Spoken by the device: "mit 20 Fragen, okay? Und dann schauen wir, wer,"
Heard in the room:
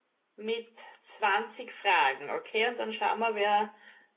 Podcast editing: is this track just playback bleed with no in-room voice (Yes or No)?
Yes